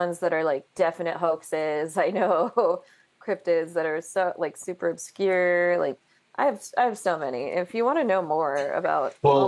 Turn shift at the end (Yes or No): Yes